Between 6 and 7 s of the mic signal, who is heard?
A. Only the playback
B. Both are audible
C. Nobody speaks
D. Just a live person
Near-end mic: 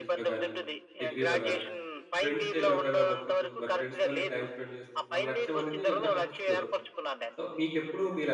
B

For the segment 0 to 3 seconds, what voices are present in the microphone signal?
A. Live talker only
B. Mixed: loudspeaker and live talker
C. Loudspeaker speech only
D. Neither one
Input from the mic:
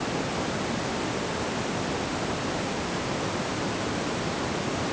D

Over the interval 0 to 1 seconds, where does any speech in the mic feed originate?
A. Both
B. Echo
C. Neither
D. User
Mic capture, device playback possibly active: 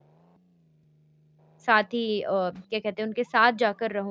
C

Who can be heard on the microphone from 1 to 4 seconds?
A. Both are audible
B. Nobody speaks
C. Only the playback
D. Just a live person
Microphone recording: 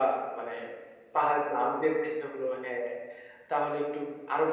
C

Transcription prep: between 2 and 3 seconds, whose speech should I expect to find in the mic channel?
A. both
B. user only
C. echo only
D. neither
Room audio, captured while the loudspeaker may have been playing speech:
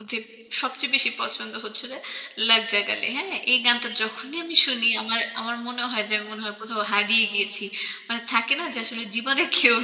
B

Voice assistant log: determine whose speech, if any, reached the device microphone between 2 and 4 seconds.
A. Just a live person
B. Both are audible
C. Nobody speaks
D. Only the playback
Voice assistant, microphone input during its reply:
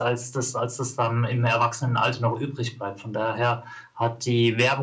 D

